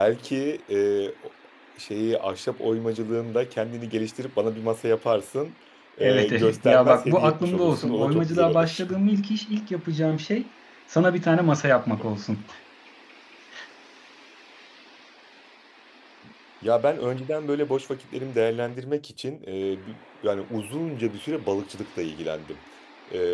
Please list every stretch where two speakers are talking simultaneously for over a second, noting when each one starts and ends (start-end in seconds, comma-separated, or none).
6.0-8.8